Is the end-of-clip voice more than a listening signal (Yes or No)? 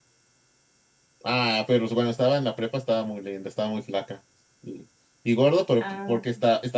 No